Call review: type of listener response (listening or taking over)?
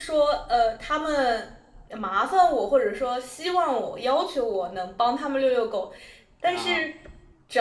listening